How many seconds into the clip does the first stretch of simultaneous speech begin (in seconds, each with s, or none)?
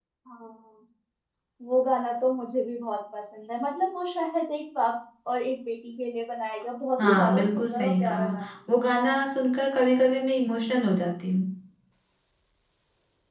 7.0 s